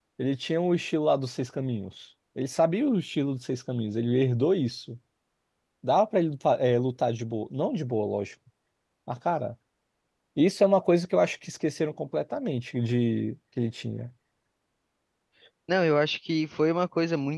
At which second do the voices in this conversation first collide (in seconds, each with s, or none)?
none